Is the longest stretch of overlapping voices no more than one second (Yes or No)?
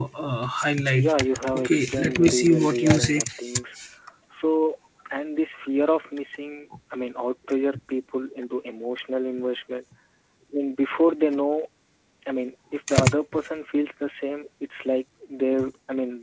No